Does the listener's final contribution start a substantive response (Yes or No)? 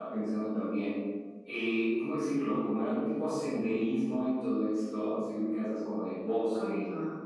No